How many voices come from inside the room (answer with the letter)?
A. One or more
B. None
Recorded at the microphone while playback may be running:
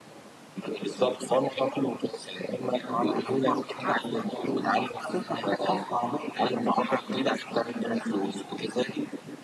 A